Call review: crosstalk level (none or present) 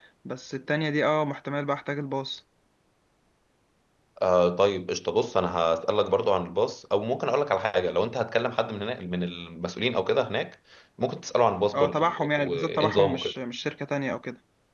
present